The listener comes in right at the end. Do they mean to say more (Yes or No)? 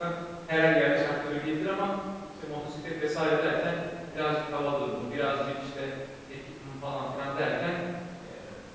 No